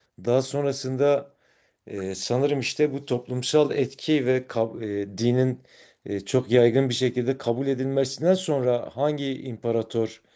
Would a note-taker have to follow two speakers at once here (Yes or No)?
No